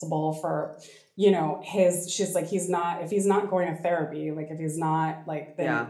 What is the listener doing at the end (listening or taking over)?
listening